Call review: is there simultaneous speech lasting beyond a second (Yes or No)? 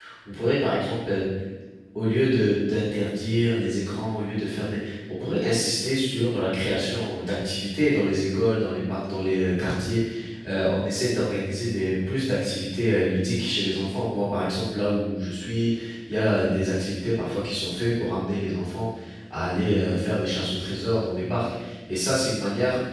No